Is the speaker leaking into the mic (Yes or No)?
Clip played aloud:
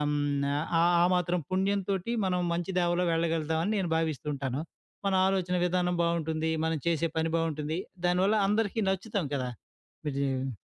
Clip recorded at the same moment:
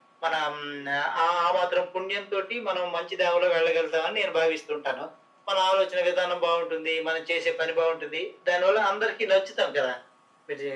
Yes